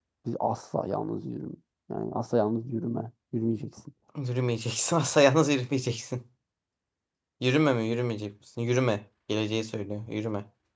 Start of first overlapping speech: none

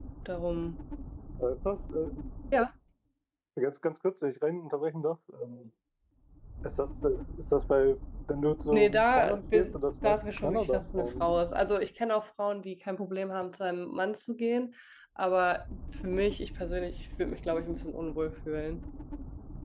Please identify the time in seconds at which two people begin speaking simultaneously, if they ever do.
9 s

